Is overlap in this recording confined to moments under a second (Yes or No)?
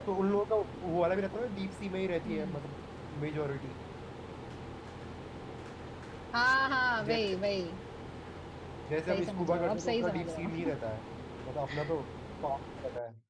No